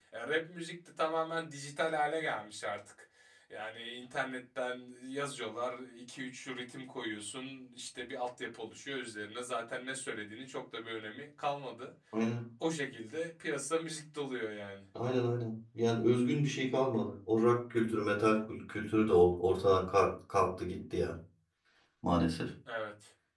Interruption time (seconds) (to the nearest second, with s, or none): none